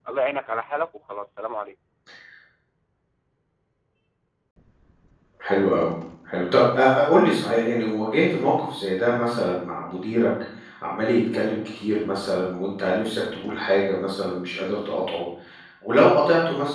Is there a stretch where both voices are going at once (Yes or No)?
No